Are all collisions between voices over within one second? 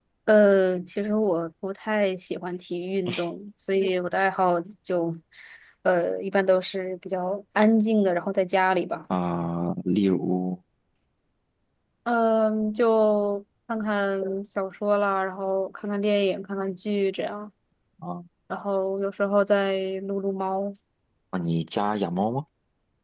Yes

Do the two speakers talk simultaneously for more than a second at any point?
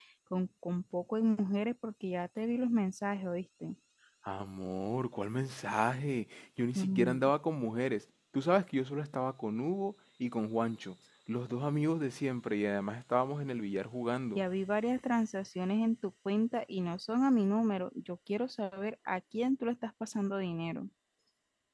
No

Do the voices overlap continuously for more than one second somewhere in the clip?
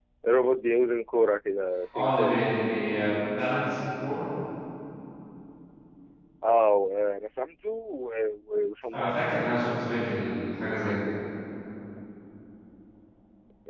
No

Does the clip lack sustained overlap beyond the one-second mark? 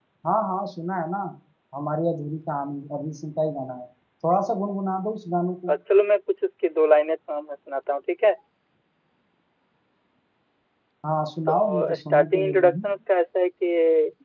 No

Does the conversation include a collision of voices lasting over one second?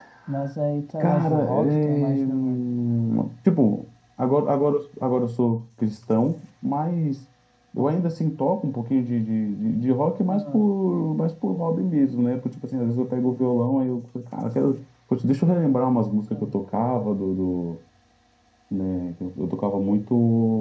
Yes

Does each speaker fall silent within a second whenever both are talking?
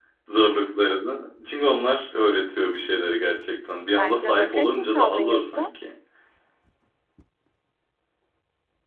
No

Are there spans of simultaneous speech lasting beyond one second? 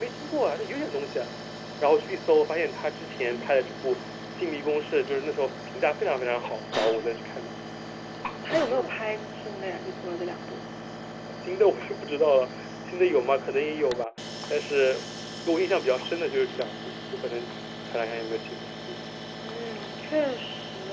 No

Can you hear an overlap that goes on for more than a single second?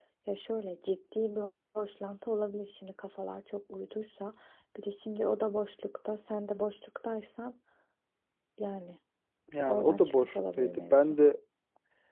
Yes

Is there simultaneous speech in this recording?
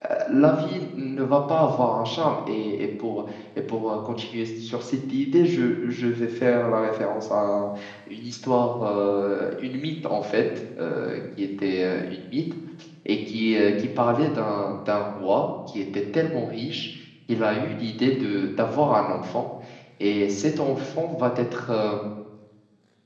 No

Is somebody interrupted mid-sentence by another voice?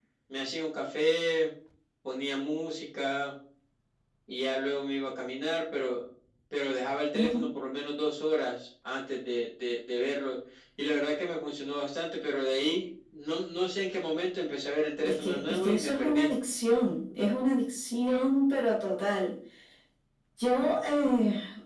Yes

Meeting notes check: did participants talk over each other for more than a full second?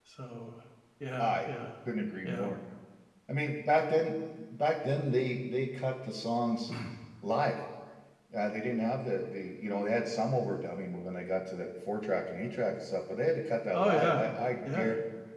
No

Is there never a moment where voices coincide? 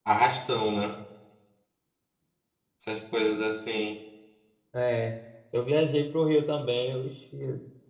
Yes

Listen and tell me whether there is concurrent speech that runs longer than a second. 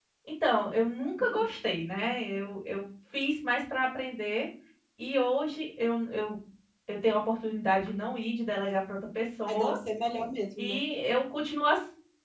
No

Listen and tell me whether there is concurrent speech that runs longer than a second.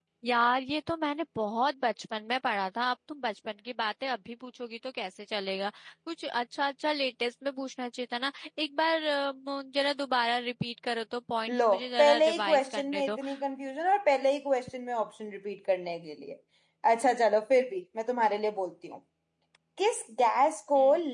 Yes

